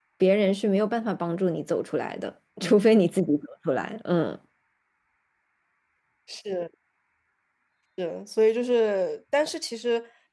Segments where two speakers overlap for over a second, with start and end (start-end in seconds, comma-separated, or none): none